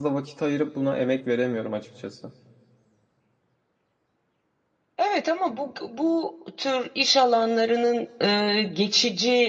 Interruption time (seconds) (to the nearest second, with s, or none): none